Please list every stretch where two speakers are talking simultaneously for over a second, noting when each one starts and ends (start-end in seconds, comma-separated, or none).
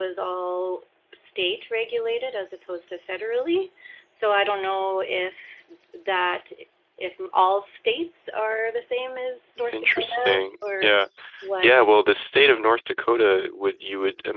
9.7-10.9